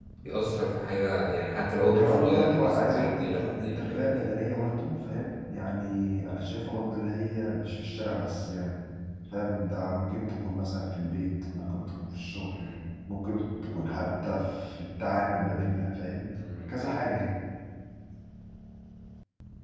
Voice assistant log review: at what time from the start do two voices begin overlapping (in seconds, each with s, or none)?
1.8 s